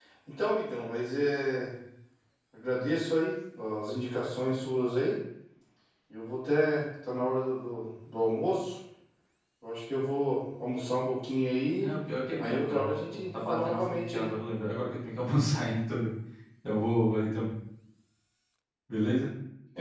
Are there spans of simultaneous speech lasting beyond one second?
Yes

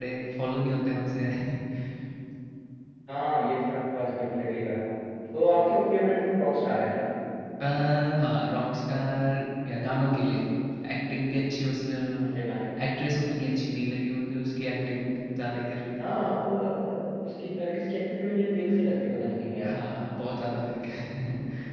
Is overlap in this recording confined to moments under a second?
Yes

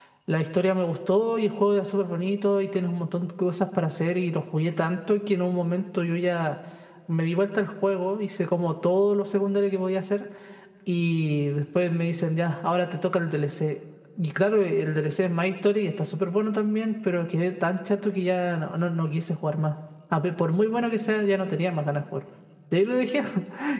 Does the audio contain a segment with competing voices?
No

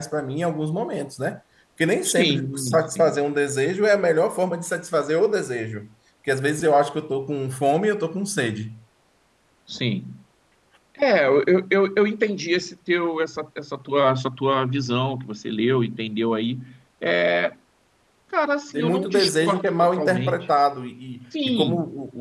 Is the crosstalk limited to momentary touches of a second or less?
No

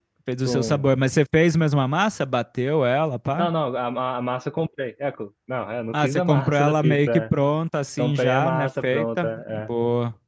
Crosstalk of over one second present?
Yes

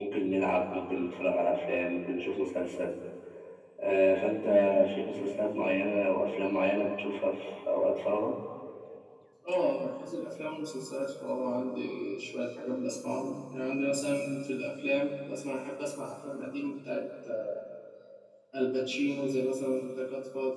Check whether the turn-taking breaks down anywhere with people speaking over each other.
No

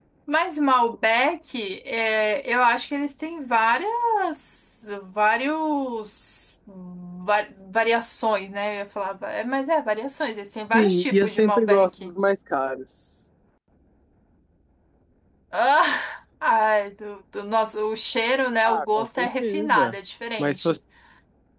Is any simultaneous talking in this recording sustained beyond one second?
Yes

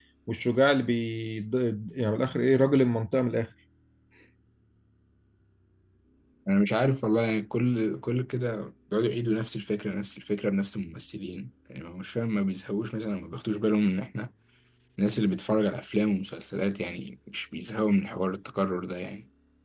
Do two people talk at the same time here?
No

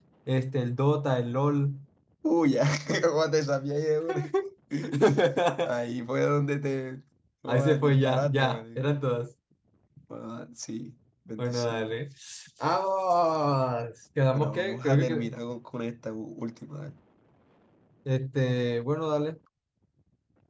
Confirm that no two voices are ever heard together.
No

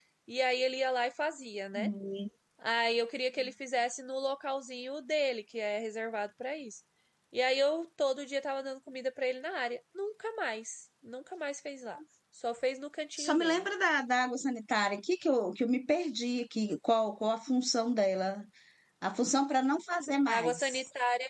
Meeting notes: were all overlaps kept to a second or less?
Yes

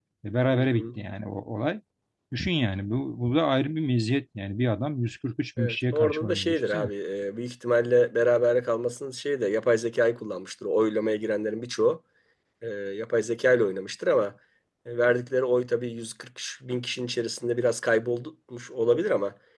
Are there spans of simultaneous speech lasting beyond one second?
Yes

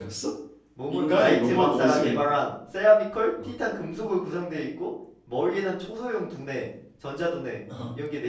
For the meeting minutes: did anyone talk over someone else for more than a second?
Yes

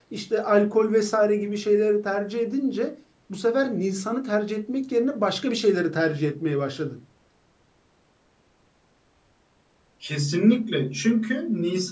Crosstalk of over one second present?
No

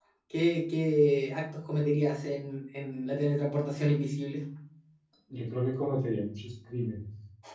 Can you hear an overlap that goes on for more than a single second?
No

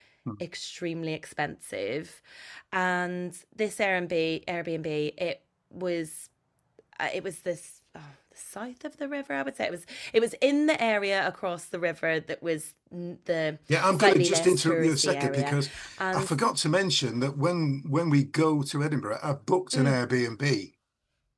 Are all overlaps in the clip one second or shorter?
No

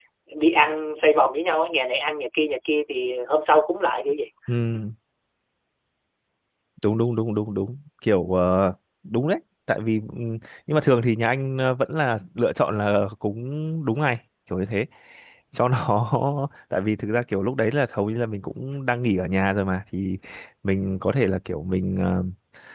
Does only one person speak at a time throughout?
Yes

